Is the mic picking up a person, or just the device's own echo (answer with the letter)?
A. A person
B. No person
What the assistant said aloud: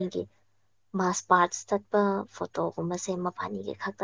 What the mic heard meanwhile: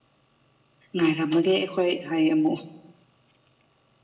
A